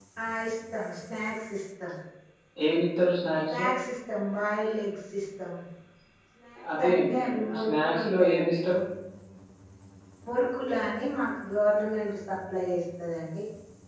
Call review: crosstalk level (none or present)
present